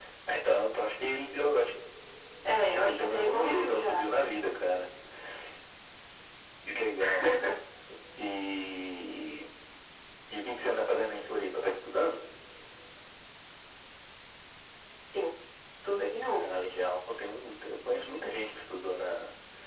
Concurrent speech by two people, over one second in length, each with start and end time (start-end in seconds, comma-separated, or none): 2.6-4.0